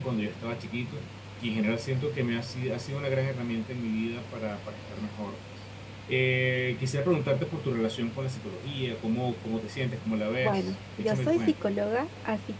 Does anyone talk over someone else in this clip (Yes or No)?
Yes